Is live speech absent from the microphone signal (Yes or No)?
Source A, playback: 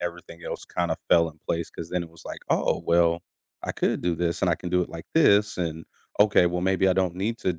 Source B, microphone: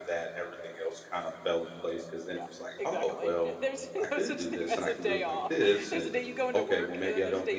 No